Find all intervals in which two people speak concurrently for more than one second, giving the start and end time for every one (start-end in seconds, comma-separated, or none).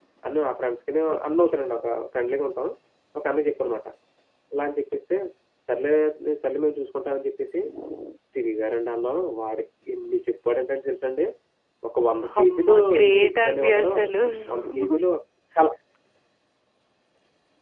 12.4-13.9